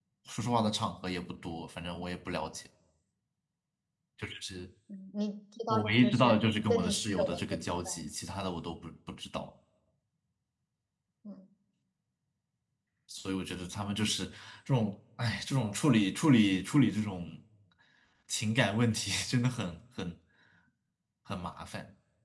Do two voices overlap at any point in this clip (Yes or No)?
Yes